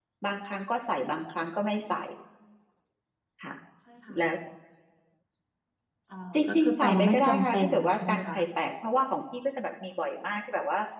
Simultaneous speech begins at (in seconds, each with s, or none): 6.3 s